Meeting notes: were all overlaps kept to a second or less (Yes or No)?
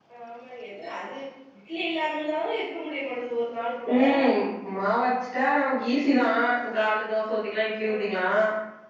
Yes